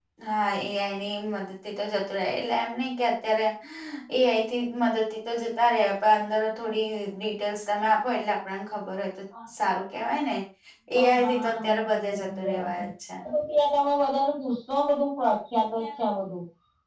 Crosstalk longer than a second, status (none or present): present